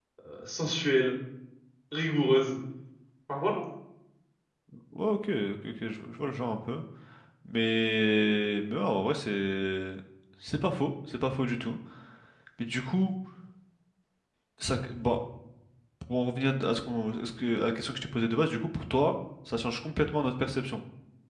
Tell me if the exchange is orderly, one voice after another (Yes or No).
Yes